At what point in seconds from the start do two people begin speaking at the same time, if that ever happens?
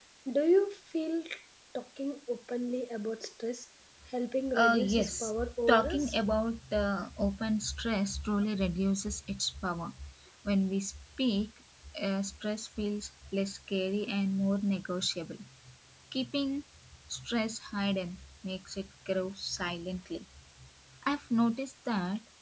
4.5 s

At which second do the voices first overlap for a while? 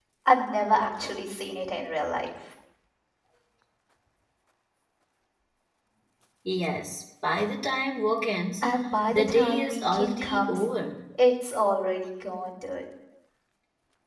9.1 s

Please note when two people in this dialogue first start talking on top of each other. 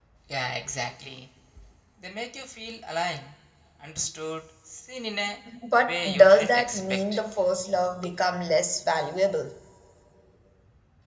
5.9 s

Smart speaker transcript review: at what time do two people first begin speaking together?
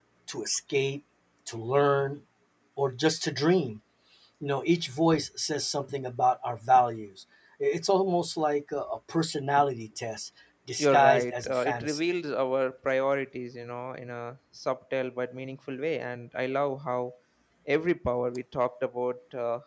10.8 s

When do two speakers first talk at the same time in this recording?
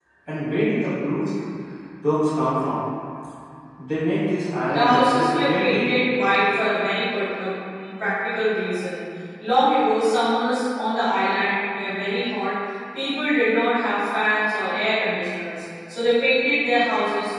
4.7 s

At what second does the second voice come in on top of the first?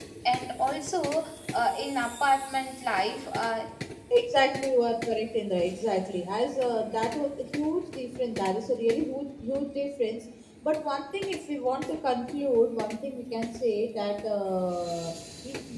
none

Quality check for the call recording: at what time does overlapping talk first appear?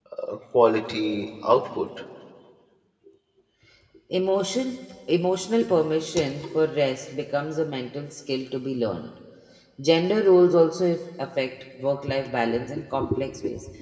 none

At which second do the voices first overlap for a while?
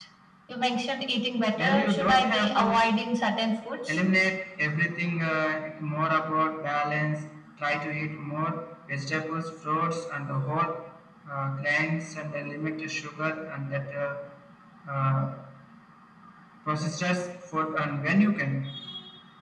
1.6 s

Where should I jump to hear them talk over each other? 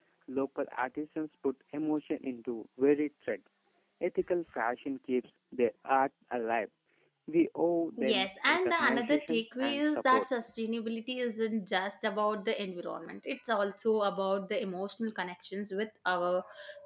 8.0 s

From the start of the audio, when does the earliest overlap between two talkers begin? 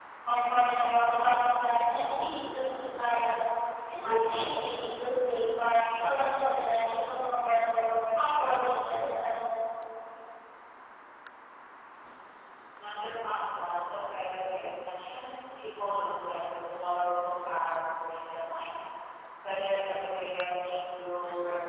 none

